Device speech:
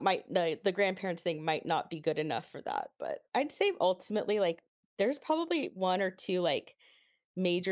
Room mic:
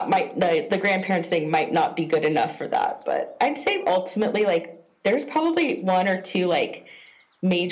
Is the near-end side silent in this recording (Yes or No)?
Yes